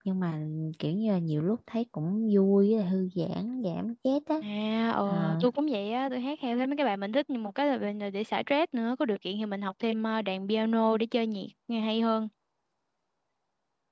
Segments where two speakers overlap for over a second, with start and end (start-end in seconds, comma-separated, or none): none